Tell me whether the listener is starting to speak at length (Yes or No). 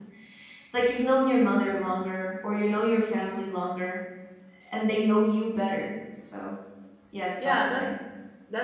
Yes